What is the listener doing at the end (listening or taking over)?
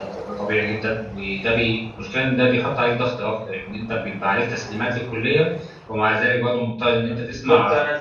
taking over